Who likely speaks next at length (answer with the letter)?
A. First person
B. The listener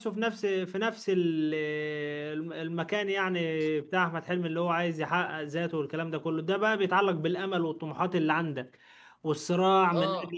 A